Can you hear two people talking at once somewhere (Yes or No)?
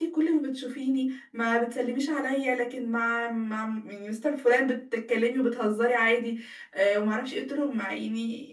No